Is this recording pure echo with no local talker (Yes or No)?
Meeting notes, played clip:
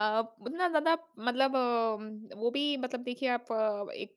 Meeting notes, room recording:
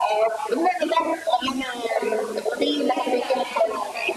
No